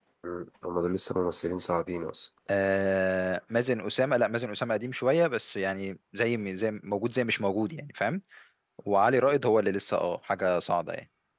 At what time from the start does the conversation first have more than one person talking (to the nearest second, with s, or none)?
none